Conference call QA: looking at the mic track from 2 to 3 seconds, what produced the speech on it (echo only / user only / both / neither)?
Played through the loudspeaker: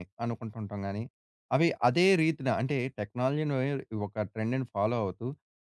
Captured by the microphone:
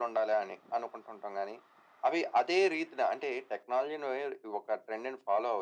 echo only